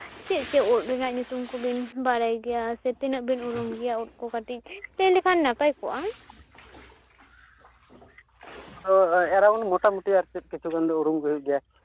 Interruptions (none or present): none